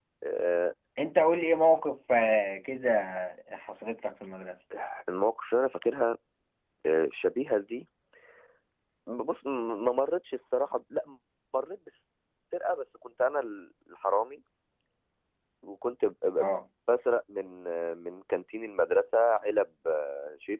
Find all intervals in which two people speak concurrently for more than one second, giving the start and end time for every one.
none

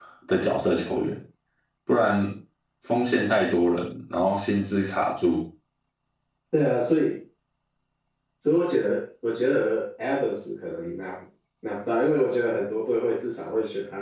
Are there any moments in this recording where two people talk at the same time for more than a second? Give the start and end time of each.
none

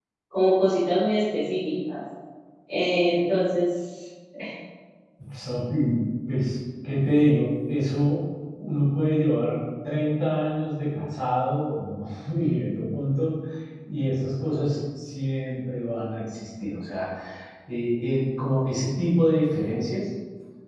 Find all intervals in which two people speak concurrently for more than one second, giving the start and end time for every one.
none

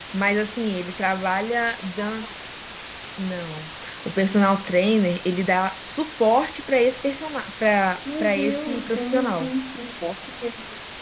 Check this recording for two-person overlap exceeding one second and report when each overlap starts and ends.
8.2-9.5

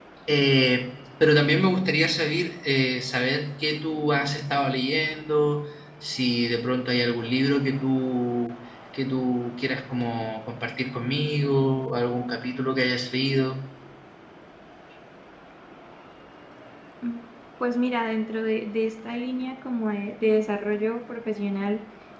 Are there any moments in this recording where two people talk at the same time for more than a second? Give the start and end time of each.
none

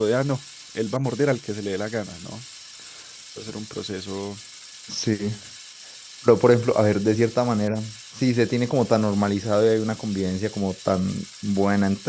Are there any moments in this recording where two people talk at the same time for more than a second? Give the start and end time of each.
none

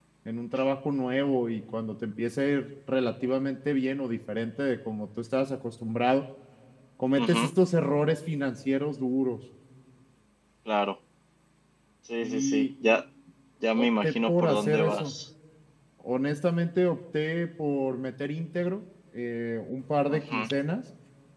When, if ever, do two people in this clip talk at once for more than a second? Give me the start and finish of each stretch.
13.7-15.1

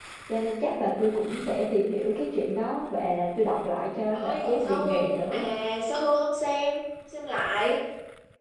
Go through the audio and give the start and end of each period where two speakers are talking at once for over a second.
4.1-5.5

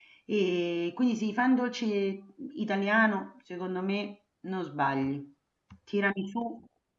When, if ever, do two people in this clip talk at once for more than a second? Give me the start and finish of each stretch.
none

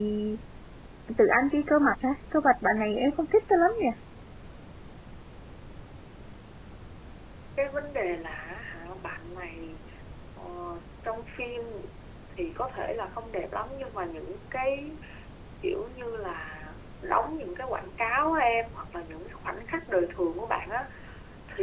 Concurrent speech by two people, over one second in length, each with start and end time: none

